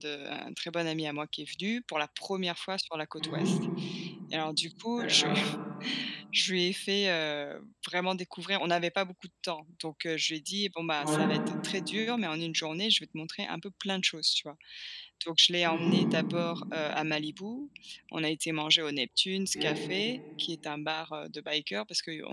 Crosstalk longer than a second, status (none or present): none